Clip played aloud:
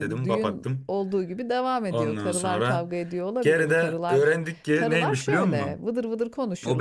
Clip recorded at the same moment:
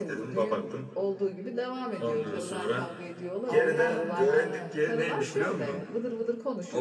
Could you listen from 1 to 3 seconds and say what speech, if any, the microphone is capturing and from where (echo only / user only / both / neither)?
echo only